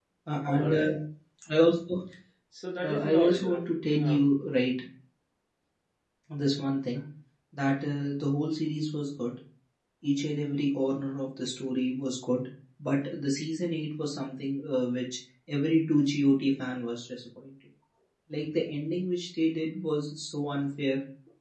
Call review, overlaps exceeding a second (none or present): present